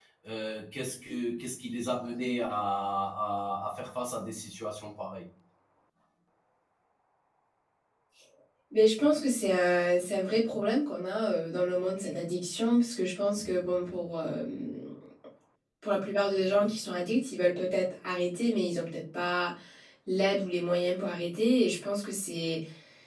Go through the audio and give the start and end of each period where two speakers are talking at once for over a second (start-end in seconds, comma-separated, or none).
none